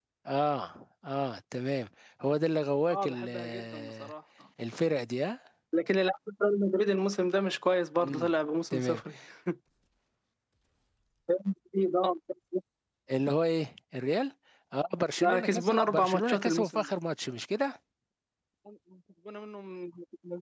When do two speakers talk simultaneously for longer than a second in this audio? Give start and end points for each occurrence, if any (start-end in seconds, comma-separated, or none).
2.9-4.1, 15.2-16.9